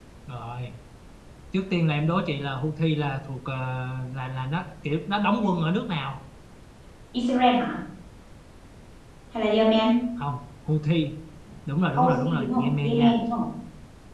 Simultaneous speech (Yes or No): Yes